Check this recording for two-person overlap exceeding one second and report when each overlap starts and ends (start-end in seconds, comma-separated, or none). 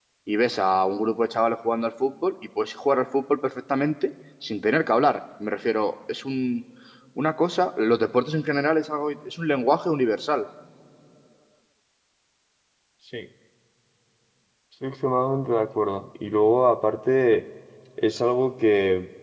none